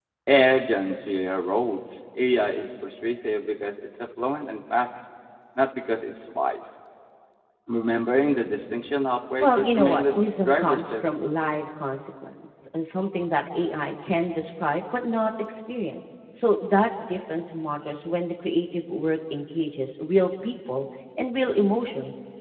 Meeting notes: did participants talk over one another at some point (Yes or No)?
Yes